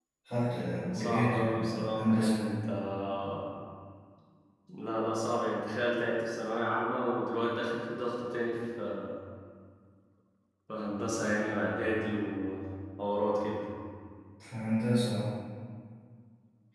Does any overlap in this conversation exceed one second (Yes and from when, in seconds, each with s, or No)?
Yes, from 0.8 s